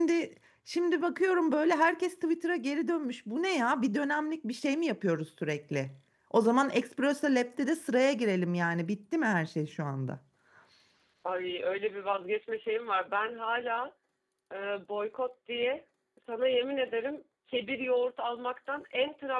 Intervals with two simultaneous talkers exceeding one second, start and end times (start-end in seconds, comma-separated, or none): none